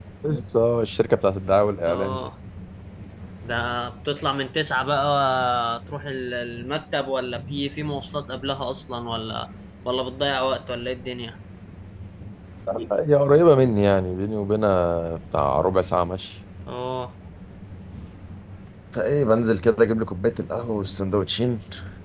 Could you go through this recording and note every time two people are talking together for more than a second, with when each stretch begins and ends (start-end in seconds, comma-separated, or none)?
none